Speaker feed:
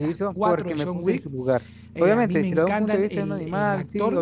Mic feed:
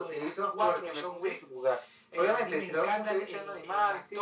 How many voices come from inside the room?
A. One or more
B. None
B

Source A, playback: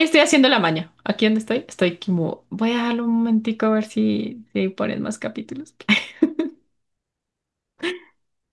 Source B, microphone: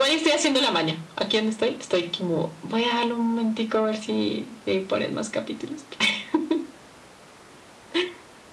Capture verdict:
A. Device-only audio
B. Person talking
A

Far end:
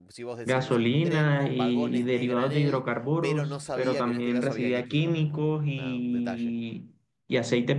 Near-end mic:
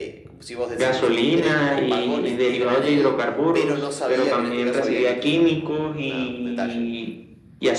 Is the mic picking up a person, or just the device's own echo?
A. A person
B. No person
B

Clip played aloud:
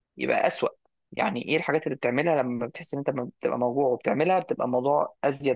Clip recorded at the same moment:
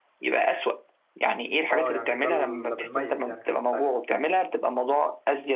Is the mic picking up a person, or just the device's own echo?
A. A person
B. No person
A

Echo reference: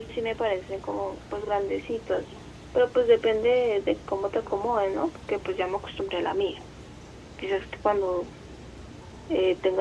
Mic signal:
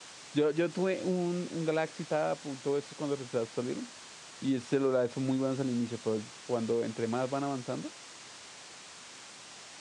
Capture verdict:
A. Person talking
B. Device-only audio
A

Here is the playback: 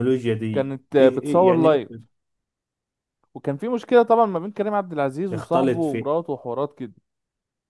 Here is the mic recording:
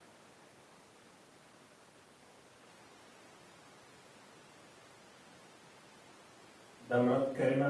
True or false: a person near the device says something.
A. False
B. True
B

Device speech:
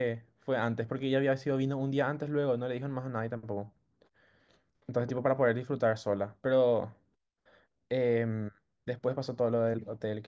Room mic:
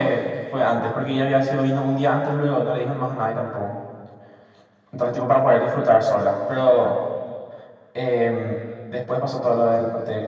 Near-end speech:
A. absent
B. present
A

